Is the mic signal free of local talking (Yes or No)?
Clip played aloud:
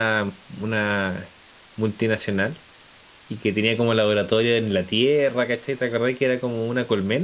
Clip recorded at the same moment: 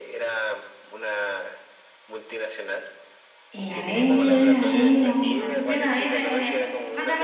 No